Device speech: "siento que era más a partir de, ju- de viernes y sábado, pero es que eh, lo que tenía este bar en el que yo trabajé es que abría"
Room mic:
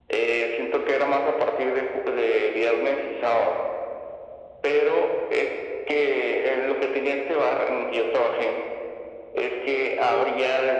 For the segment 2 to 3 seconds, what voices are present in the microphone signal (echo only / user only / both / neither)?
echo only